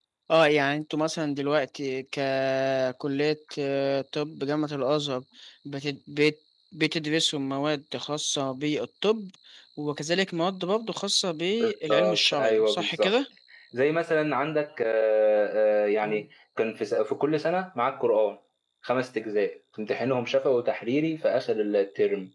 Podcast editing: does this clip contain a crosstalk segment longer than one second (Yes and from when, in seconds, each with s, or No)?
Yes, from 11.6 s